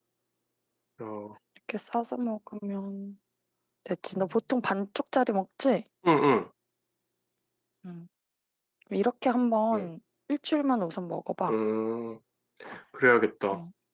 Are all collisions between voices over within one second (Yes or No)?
Yes